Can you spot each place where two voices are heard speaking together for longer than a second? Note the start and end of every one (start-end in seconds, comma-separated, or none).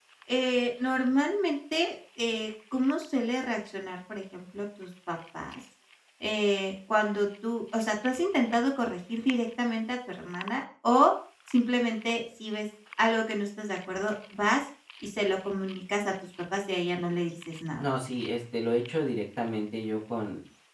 none